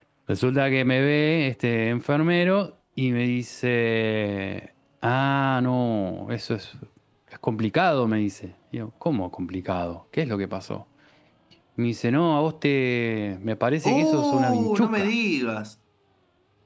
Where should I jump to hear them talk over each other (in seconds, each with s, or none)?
13.8 s